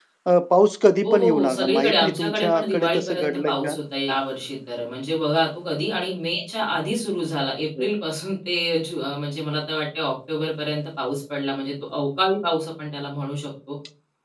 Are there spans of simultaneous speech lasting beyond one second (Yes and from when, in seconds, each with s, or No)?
Yes, from 1.0 s